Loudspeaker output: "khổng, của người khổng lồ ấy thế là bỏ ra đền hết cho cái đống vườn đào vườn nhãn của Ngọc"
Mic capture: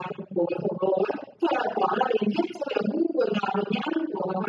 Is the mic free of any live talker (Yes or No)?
Yes